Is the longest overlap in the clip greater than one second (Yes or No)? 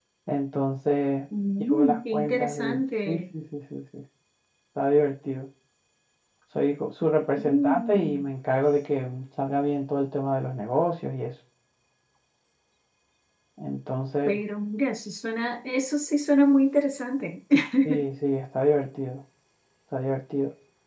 Yes